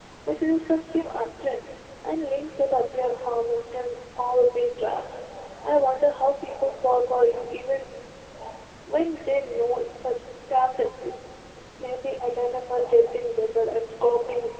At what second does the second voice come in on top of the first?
none

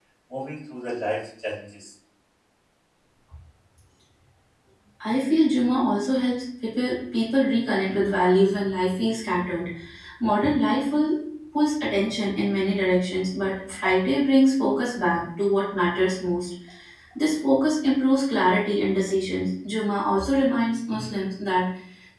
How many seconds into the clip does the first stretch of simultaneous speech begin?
none

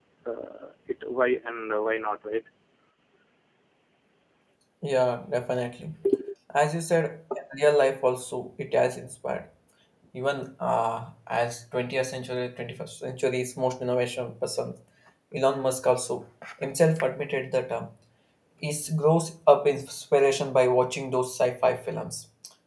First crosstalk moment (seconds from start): none

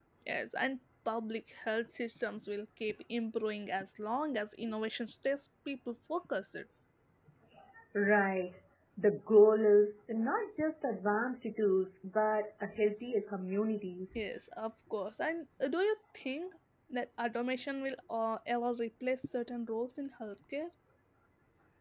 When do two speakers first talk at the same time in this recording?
none

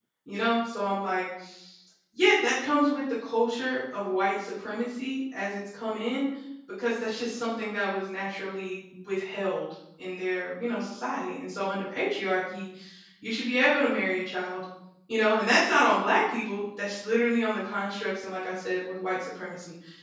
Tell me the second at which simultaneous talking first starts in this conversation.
none

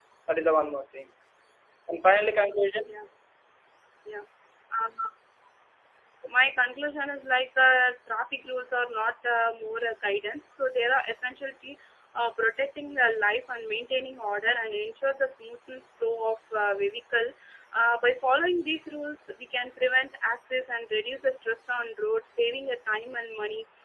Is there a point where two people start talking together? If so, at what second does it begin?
none

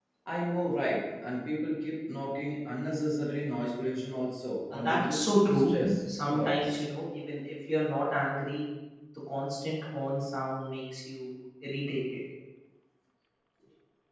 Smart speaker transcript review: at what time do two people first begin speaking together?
4.7 s

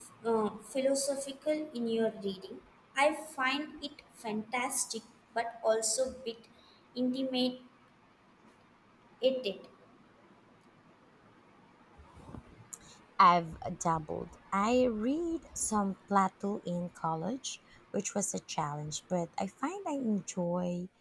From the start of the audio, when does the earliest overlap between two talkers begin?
none

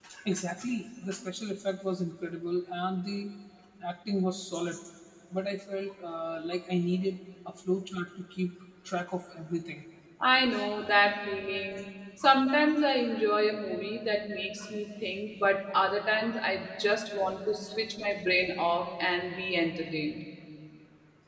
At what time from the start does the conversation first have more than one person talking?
none

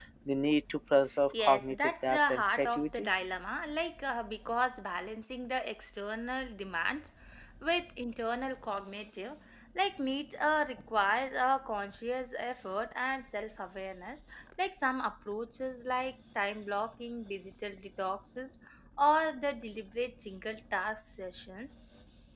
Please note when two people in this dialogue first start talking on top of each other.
1.3 s

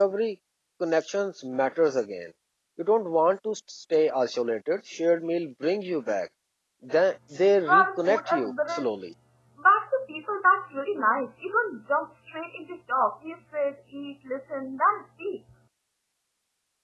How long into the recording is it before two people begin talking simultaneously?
7.7 s

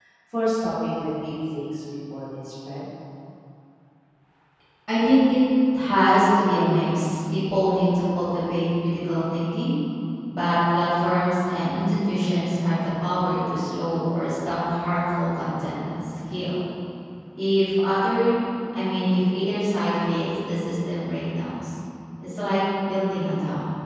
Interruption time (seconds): none

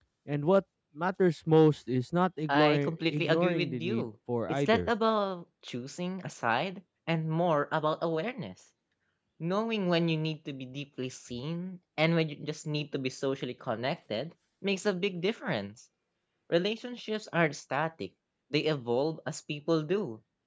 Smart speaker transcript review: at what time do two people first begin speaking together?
2.5 s

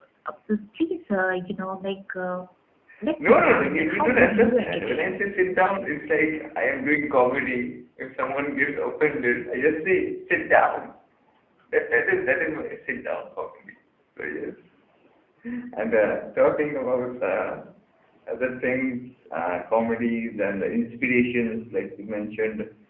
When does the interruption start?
3.2 s

